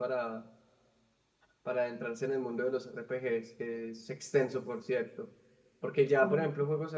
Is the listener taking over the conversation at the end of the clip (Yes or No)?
No